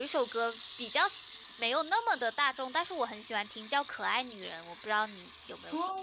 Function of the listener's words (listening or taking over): taking over